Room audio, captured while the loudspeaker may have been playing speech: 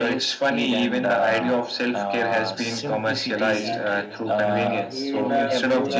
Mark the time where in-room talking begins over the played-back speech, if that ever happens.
3.4 s

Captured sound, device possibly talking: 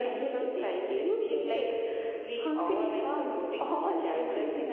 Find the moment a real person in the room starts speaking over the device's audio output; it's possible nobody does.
none

